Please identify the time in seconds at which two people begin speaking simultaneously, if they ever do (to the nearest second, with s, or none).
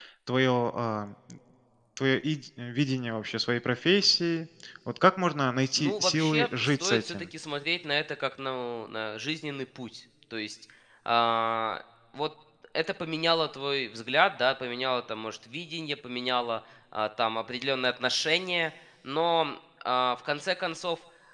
6 s